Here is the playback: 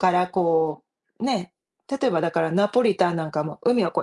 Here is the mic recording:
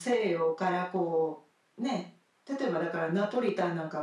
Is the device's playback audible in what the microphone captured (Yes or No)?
Yes